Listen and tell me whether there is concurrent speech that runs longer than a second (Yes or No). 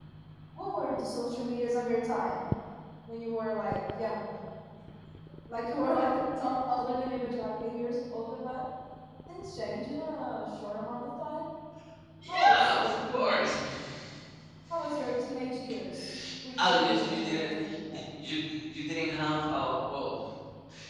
Yes